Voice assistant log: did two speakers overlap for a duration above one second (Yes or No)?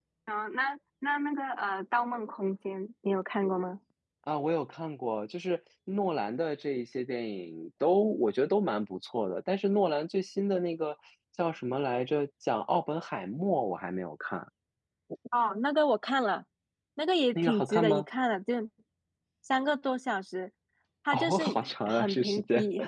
Yes